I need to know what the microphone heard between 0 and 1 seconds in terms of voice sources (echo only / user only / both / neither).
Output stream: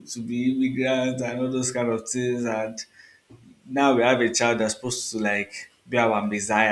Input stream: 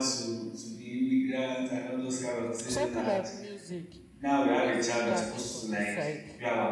echo only